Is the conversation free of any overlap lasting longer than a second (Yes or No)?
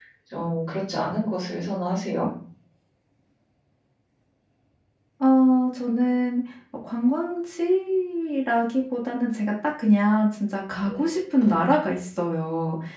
Yes